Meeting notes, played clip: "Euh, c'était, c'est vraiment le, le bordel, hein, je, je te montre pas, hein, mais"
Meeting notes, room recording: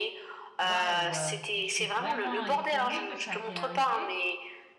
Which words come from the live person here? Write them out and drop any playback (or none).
Waouh, euh, je suis vraiment étonnée que ça t'est arrivé,